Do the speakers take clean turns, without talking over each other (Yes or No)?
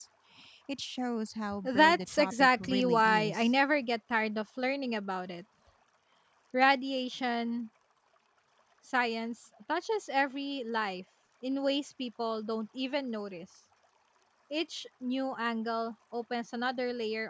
No